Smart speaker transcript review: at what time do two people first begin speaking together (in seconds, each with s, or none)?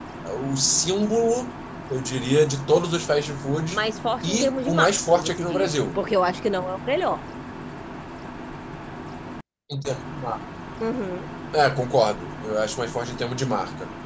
4.2 s